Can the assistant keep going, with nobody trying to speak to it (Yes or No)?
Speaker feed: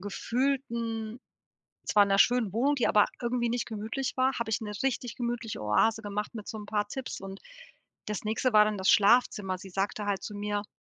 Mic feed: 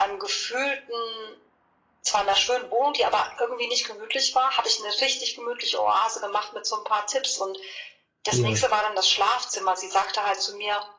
No